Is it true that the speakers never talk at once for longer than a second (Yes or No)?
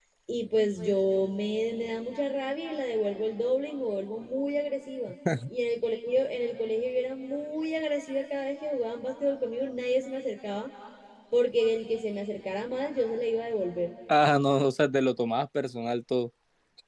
Yes